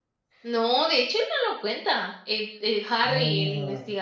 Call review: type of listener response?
listening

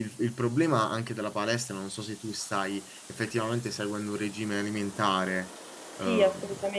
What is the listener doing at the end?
taking over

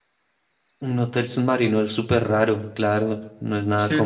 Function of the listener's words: taking over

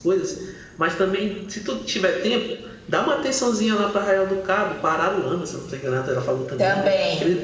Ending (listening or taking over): listening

